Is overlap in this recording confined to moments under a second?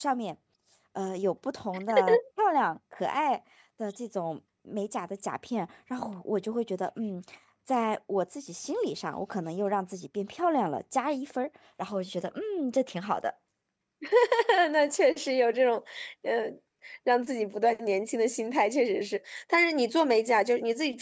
Yes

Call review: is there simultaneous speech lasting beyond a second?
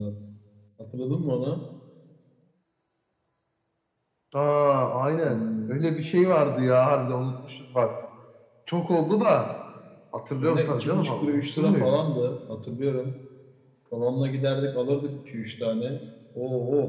Yes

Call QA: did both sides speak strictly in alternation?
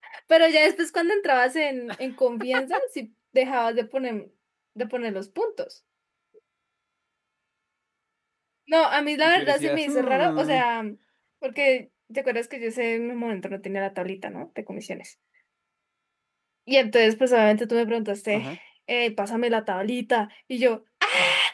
No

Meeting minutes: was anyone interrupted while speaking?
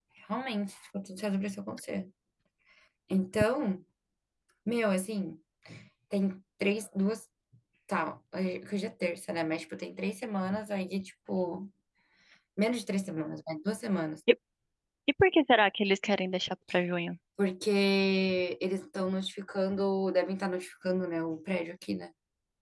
No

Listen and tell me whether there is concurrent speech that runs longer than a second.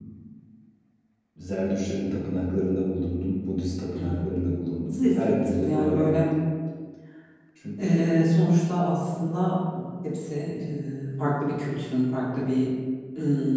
Yes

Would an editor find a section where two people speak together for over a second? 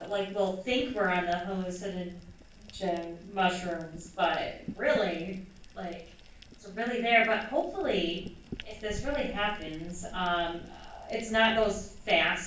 No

